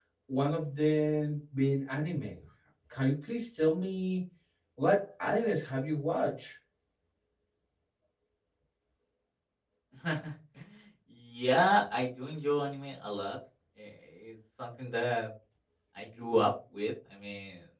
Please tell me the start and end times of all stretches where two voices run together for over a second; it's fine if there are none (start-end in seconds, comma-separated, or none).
none